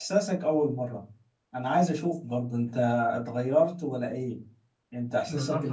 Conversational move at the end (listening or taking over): taking over